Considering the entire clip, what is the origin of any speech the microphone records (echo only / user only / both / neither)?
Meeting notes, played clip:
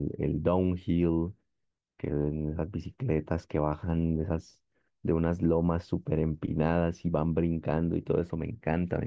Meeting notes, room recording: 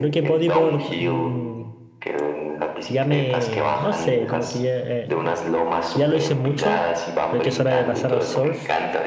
both